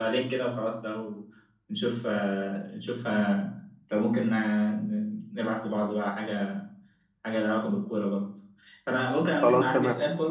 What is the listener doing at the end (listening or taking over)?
listening